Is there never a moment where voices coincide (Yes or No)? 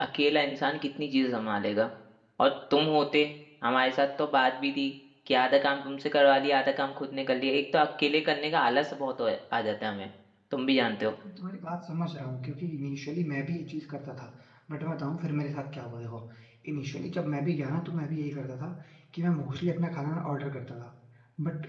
Yes